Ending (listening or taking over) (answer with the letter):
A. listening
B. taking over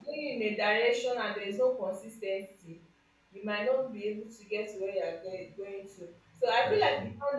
A